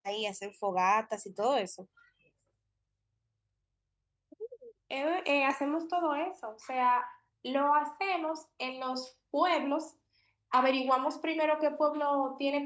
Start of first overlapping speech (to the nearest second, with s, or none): none